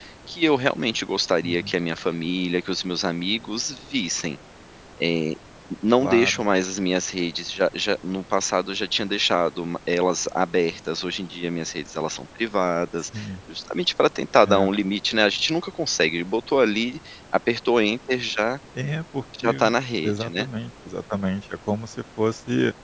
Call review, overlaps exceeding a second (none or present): none